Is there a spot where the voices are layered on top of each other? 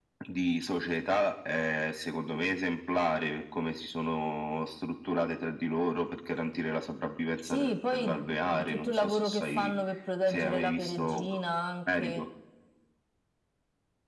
Yes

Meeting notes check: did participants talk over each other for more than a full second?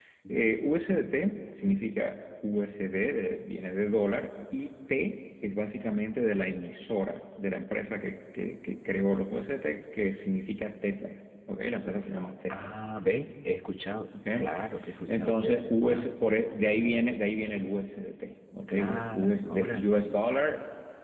Yes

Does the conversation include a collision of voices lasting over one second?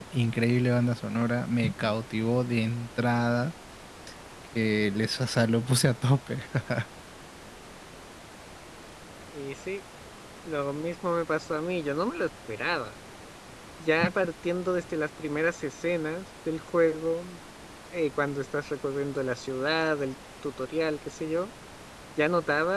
No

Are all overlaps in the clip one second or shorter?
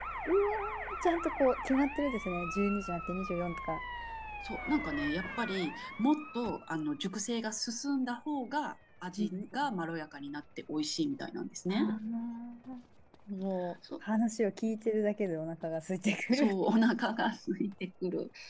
Yes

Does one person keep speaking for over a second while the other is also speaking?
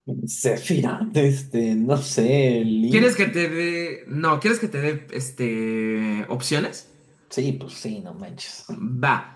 No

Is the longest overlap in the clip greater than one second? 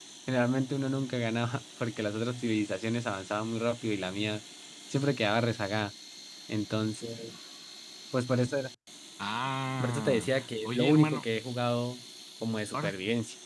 Yes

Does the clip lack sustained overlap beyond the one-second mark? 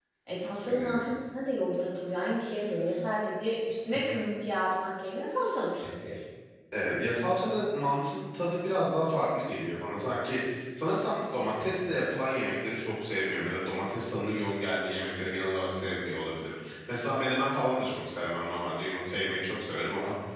Yes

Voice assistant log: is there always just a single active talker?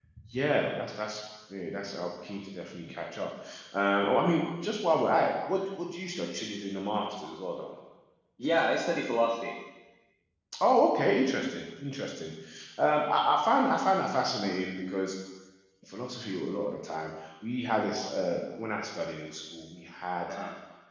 Yes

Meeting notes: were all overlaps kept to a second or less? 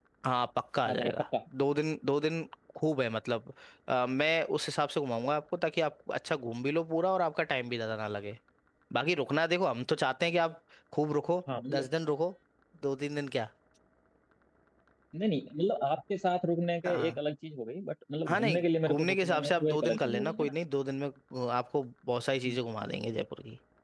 No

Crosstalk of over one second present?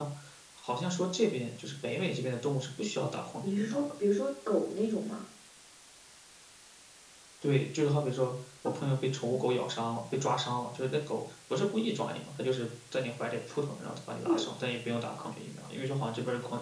No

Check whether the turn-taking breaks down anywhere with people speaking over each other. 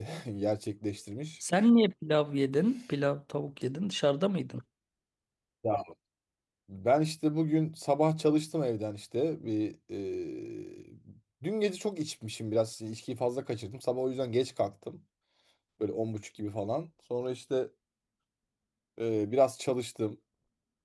No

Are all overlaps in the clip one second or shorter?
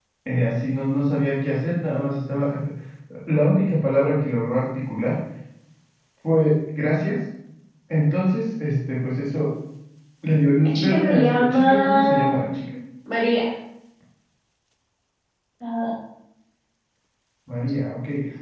No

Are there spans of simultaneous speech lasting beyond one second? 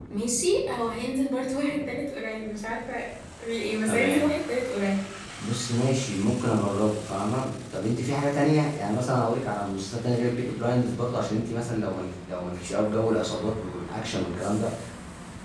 No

